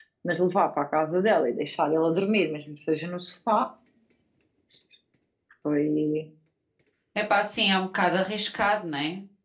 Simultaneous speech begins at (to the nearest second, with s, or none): none